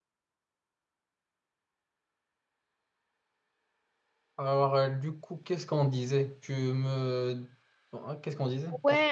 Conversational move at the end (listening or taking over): taking over